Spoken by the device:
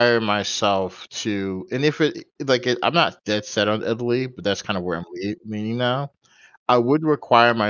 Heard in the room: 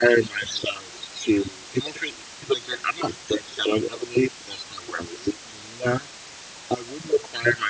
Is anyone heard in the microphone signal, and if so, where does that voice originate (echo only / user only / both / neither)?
echo only